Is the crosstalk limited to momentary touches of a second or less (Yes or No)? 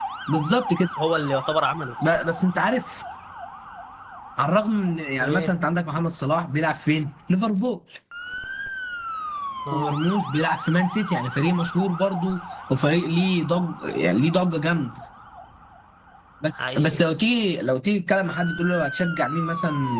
Yes